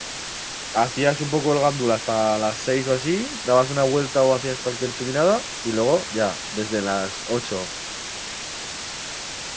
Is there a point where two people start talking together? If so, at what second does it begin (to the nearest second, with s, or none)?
none